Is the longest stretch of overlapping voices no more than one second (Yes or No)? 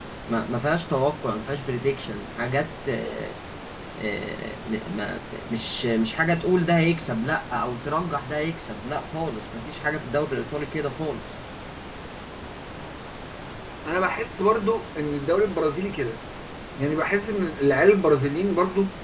Yes